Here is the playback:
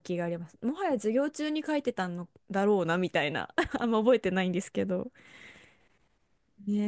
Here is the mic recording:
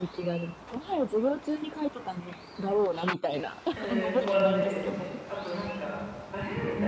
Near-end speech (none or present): present